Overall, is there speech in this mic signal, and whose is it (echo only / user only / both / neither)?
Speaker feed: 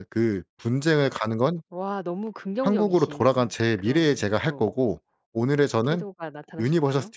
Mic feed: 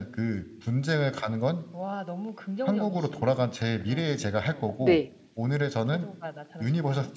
both